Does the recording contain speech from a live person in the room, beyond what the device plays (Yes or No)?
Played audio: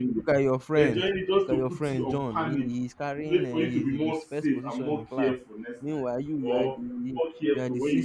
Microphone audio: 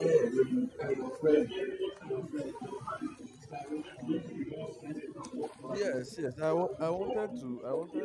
Yes